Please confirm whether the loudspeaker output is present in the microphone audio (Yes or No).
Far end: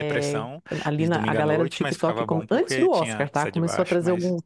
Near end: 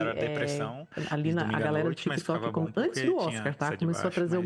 Yes